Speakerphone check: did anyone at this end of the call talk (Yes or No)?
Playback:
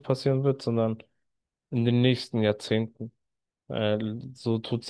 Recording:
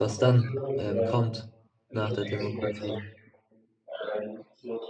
Yes